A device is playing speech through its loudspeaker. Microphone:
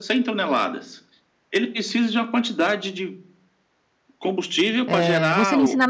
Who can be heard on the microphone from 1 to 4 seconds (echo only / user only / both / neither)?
echo only